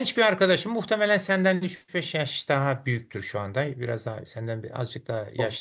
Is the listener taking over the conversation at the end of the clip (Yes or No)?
No